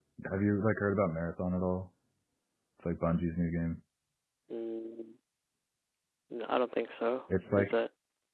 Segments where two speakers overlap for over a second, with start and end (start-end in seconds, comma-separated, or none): none